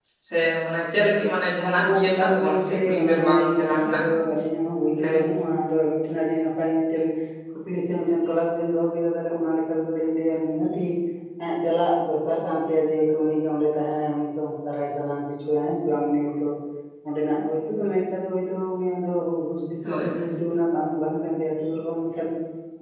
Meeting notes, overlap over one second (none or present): present